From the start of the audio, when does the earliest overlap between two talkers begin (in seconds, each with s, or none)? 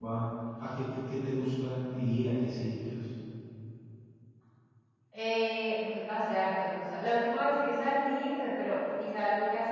none